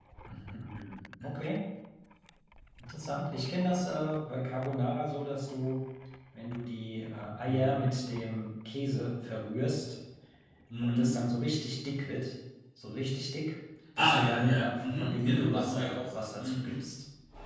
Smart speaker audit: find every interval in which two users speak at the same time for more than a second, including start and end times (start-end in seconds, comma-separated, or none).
14.0-16.8